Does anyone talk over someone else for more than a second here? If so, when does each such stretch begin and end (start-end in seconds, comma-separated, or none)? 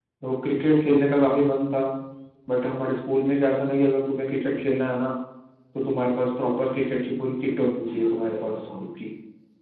7.3-8.7